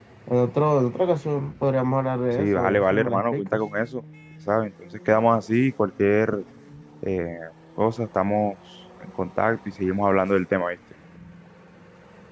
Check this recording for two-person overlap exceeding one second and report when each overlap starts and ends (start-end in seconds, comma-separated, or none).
2.4-3.6